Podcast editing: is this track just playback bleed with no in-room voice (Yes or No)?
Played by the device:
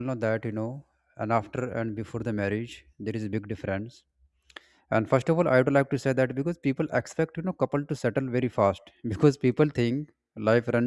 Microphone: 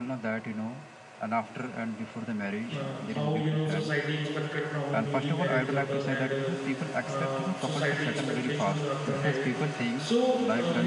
No